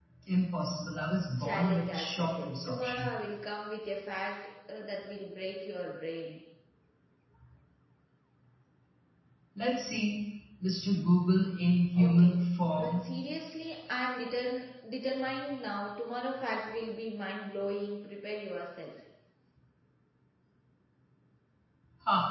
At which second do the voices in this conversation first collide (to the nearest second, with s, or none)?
1 s